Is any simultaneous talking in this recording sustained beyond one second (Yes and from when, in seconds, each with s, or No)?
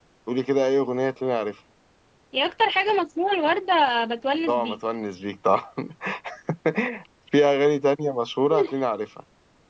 No